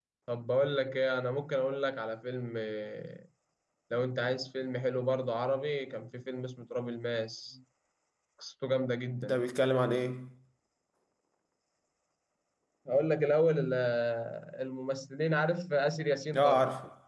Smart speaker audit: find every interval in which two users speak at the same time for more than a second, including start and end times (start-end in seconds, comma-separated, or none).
none